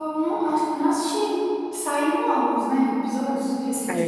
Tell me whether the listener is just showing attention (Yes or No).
No